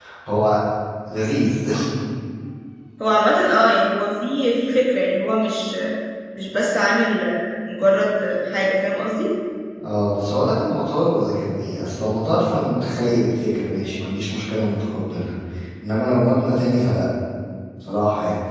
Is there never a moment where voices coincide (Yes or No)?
Yes